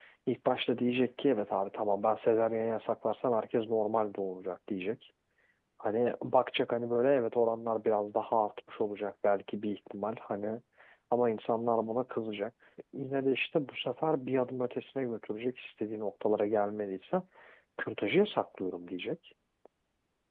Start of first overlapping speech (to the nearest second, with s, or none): none